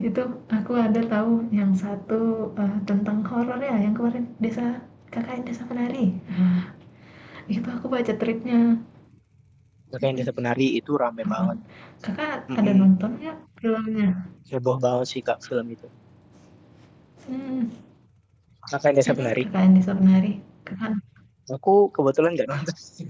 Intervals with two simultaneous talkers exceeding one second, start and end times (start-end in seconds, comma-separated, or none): none